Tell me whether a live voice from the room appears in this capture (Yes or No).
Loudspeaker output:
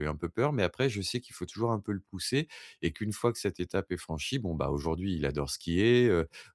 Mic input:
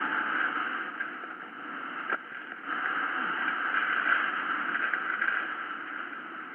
No